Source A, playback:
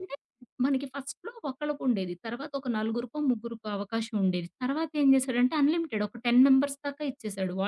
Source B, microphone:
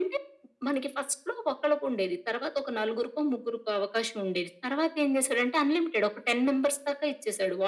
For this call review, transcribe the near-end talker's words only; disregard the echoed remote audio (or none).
none